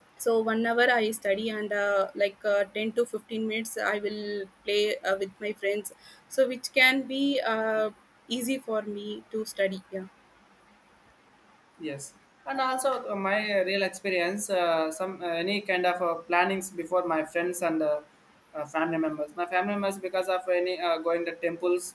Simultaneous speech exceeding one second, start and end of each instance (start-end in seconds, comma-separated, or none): none